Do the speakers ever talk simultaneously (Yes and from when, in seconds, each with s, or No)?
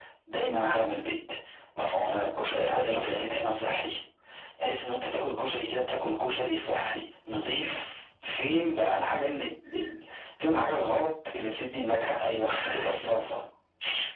Yes, from 2.0 s